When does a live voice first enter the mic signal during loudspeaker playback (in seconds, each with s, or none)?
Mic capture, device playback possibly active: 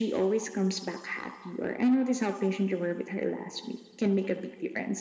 none